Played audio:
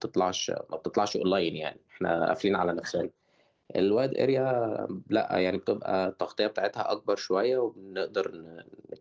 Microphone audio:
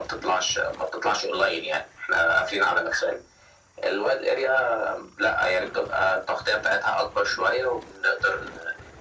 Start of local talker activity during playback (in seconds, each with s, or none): none